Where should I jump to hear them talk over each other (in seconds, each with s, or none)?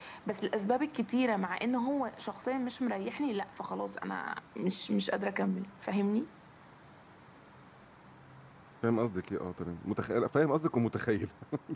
none